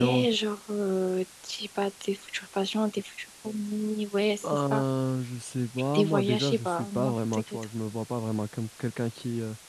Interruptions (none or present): present